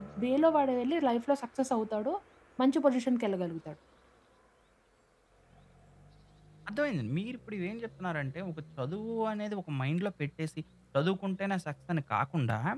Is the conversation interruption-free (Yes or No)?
Yes